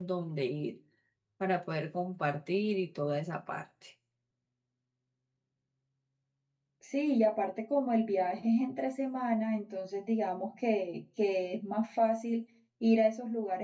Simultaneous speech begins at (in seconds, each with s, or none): none